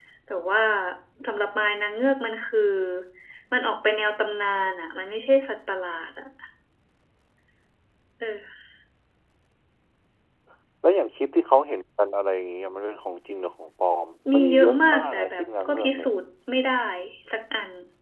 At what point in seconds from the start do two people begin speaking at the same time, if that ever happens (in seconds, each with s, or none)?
14.2 s